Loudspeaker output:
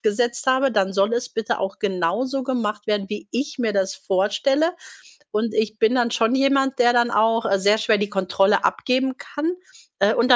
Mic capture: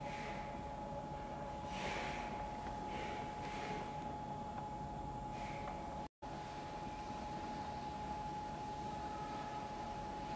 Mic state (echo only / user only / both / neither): neither